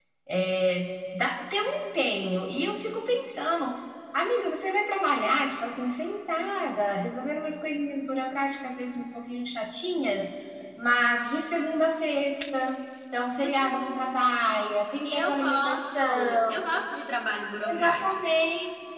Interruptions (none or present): present